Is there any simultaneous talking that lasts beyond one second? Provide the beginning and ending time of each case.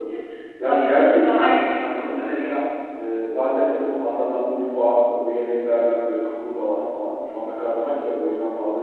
0.6-2.5

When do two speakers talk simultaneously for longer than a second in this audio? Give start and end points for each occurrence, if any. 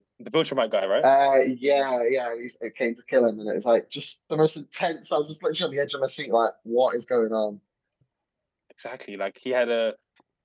none

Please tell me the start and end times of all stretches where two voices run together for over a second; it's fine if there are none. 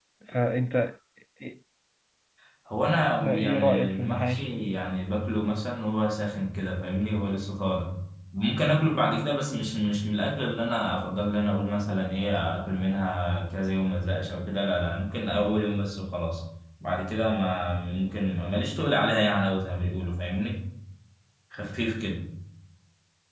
3.2-4.5

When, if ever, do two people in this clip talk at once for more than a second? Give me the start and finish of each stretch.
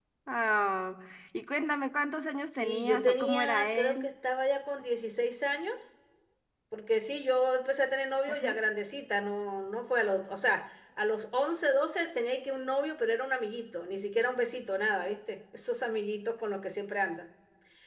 2.5-4.1

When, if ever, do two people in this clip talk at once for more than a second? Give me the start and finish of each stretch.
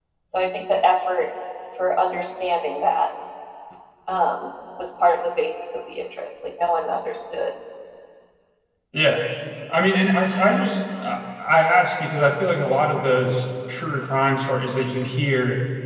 none

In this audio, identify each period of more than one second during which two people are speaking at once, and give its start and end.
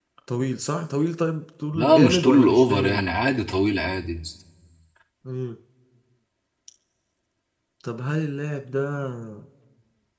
1.7-3.0

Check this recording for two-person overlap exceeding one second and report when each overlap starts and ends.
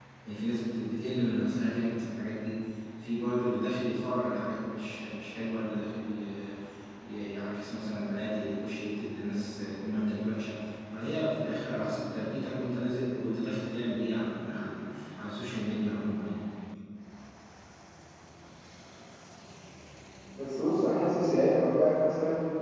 none

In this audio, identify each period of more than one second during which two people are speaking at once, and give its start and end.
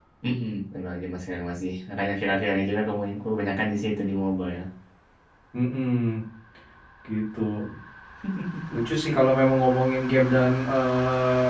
none

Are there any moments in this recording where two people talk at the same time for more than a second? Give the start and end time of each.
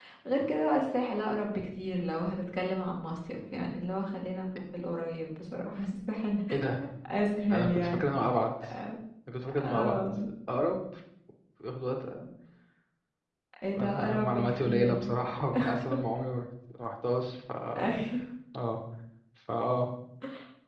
13.7-15.2

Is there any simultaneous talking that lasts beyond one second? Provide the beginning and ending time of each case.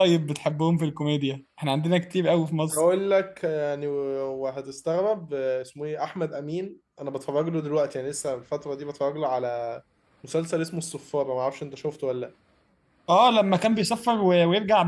none

